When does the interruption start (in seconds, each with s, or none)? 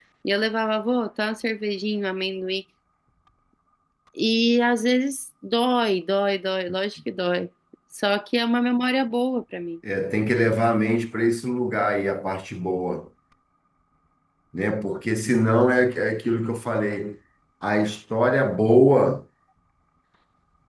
none